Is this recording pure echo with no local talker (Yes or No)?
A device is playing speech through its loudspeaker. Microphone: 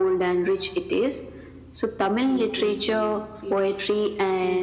No